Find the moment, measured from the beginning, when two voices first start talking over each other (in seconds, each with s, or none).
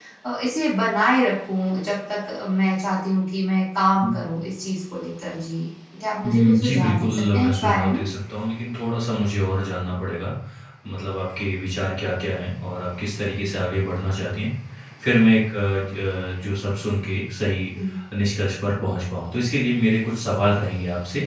6.2 s